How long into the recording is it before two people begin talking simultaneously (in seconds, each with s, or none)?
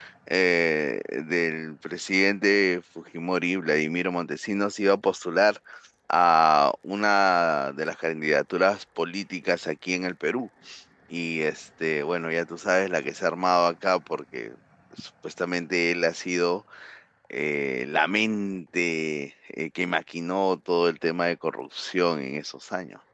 none